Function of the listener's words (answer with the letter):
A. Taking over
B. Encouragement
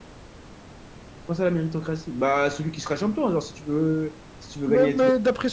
A